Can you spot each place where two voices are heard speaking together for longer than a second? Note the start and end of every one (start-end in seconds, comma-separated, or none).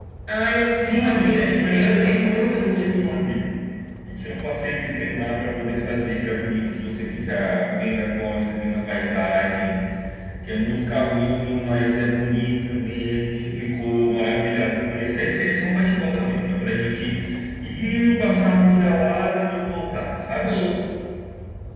0.7-3.2